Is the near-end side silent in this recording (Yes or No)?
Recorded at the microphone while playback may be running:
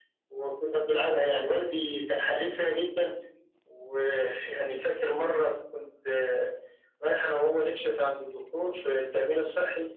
Yes